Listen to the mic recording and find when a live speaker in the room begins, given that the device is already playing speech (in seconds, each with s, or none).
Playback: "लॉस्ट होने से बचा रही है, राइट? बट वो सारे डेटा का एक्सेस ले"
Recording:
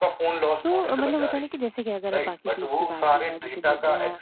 0.6 s